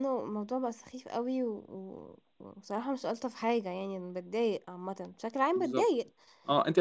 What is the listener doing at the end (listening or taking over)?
taking over